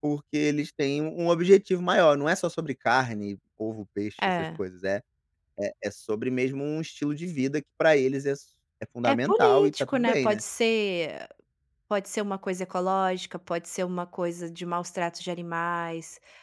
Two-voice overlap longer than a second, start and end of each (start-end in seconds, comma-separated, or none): 9.0-10.4